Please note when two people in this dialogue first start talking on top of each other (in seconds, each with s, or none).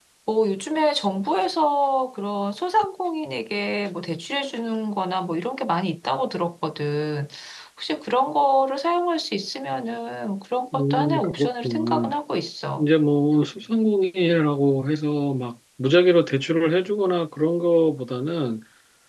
10.7 s